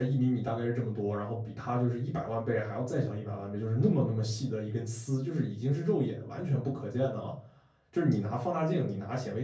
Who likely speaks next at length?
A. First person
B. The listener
A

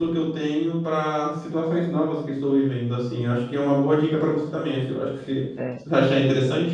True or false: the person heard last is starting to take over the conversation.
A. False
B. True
B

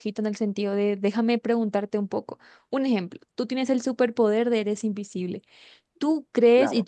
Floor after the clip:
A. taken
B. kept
B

